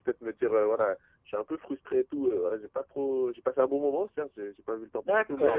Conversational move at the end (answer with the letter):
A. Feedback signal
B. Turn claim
B